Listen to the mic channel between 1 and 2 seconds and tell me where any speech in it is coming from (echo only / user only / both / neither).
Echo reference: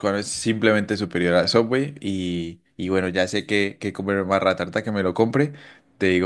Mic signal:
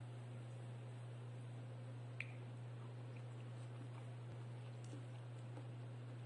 neither